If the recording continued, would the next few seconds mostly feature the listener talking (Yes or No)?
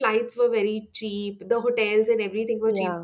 No